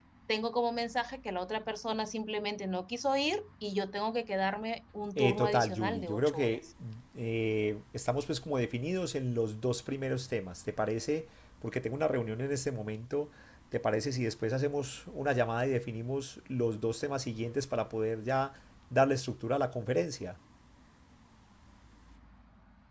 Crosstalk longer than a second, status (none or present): present